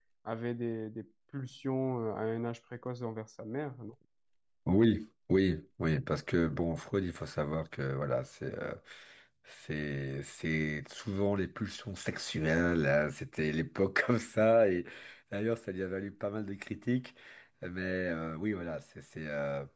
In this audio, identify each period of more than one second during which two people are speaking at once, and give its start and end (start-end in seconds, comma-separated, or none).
none